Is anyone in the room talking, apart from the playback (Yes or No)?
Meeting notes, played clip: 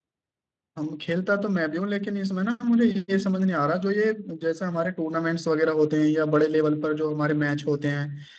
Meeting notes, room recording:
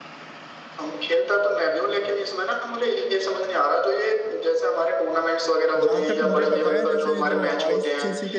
Yes